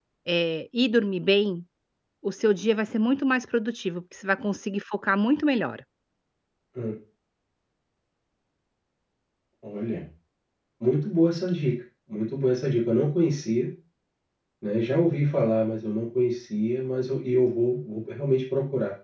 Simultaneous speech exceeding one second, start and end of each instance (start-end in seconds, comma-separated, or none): none